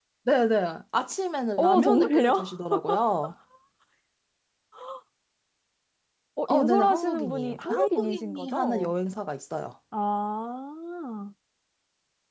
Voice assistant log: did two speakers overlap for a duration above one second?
Yes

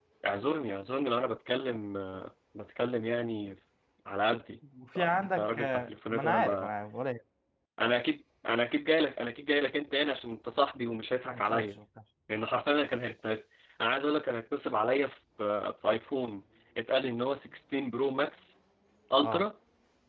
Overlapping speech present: Yes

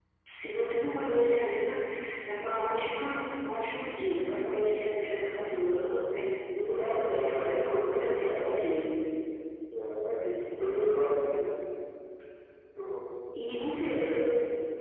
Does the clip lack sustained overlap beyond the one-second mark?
No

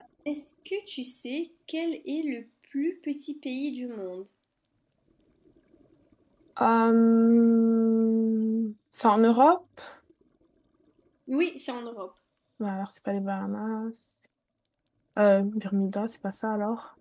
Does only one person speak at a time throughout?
Yes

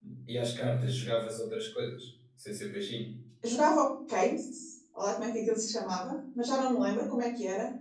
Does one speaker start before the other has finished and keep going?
No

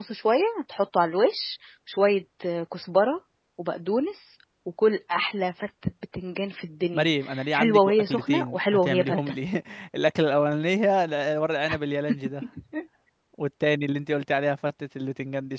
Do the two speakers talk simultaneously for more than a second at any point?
Yes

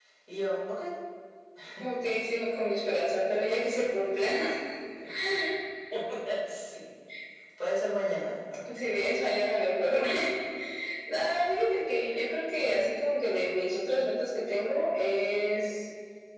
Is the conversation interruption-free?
Yes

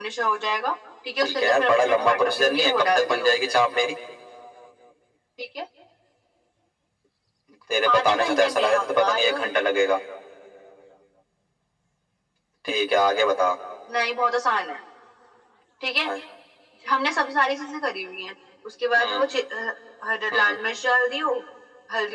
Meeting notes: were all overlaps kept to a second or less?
No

